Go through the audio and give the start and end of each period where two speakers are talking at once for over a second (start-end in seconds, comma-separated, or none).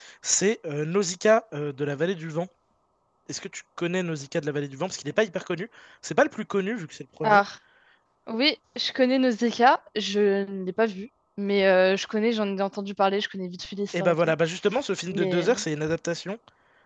none